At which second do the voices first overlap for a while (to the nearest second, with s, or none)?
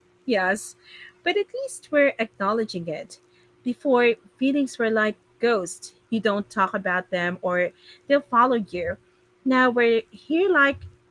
none